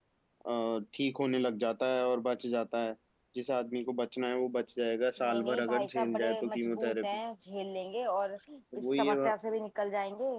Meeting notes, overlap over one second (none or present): present